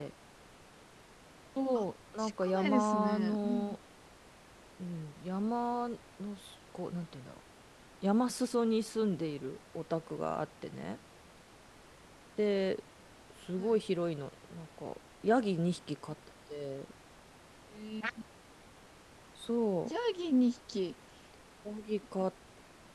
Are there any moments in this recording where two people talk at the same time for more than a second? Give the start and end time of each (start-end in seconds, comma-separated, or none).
2.2-3.8